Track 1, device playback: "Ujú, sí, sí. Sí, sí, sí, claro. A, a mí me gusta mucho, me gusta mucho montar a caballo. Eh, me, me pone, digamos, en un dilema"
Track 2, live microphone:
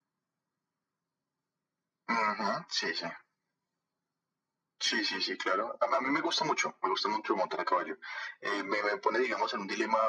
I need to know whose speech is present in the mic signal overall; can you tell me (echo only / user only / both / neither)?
echo only